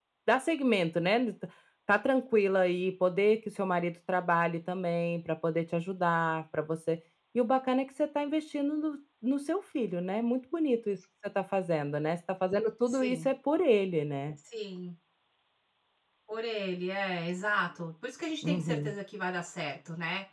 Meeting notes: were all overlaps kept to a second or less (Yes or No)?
Yes